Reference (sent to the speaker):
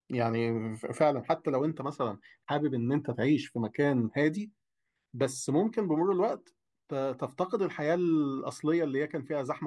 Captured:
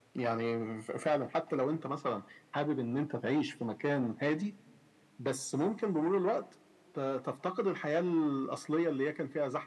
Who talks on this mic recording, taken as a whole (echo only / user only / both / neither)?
echo only